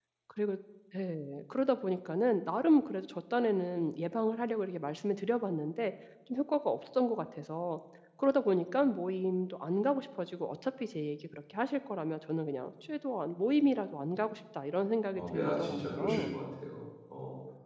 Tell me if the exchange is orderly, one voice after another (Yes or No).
No